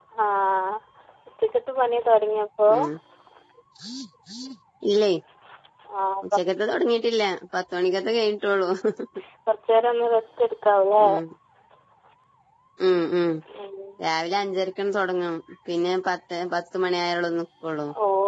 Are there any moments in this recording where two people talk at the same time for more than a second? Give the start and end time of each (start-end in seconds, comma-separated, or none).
none